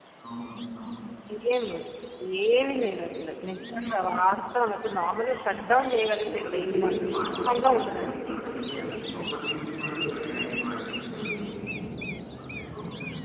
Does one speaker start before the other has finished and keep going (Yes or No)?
Yes